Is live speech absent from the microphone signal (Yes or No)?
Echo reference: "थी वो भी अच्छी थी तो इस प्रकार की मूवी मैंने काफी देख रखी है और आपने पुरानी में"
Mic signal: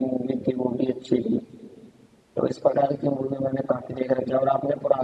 Yes